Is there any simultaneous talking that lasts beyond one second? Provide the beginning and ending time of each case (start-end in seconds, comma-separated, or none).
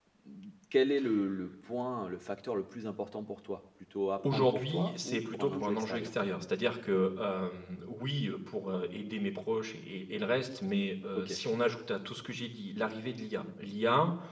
4.3-6.1